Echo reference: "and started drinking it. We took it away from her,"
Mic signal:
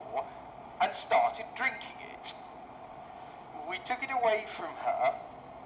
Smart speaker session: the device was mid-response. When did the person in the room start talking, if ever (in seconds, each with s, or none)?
none